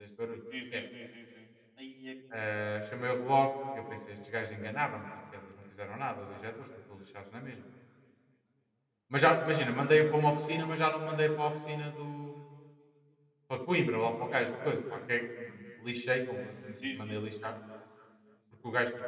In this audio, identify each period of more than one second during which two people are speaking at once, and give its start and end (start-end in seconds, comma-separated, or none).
none